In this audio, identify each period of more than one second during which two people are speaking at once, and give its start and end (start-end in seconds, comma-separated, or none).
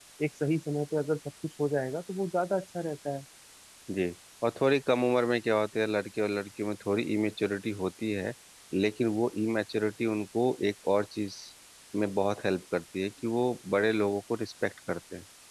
none